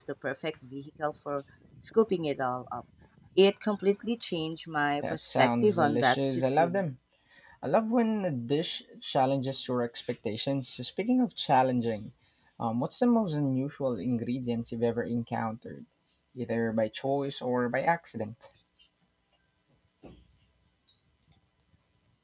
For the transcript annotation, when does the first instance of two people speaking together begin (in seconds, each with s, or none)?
5.0 s